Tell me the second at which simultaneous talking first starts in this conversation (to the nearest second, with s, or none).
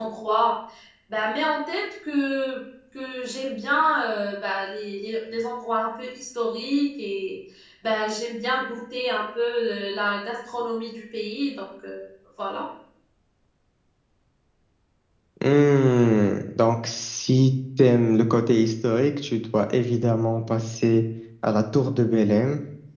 none